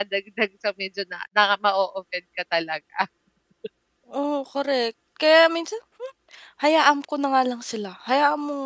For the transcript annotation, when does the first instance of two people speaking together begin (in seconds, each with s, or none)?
none